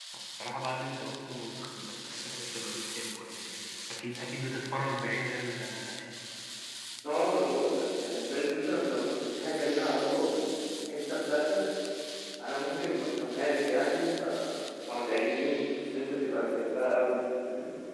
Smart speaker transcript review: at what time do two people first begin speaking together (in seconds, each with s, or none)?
none